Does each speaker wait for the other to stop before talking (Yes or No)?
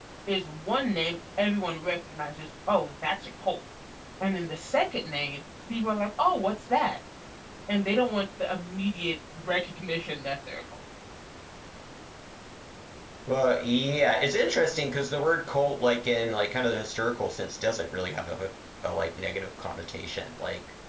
Yes